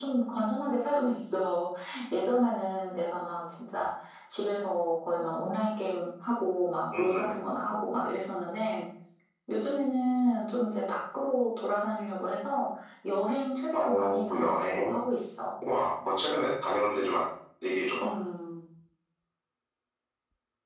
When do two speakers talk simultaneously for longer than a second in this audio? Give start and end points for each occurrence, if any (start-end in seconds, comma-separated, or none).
13.7-14.9